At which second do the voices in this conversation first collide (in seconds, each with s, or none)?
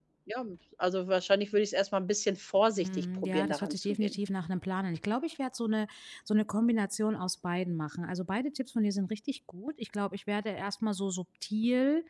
2.8 s